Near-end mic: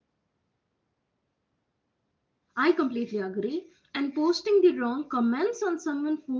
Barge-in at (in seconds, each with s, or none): 2.6 s